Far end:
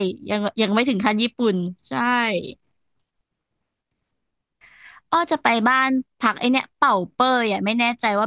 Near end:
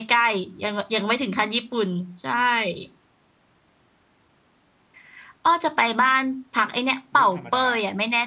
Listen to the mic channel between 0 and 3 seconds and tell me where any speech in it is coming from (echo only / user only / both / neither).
echo only